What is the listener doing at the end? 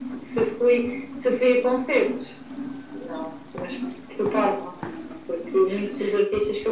listening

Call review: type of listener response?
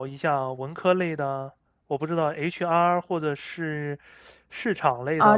taking over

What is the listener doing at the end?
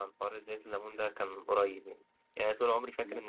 listening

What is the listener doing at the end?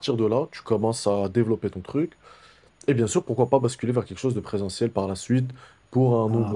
listening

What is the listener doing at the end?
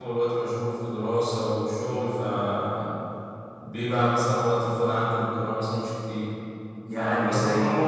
listening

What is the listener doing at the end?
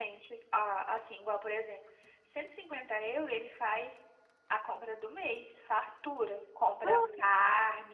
listening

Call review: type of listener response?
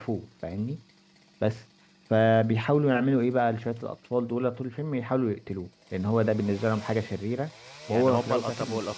taking over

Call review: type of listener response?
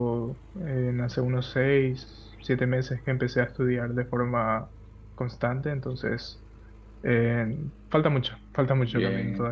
taking over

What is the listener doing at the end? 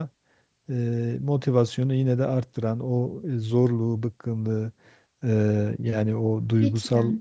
listening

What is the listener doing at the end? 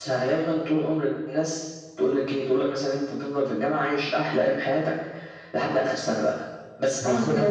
listening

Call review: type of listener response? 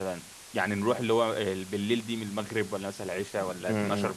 taking over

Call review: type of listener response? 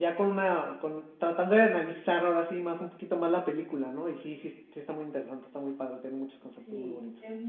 taking over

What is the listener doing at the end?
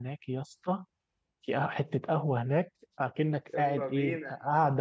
listening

